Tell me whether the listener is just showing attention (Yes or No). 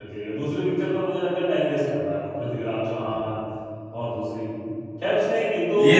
Yes